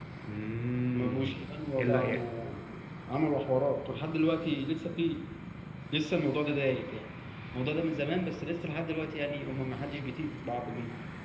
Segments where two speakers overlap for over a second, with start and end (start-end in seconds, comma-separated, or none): 0.9-2.2